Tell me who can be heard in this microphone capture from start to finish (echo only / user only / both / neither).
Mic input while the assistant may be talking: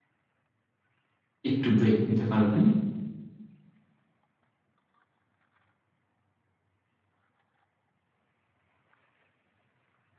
user only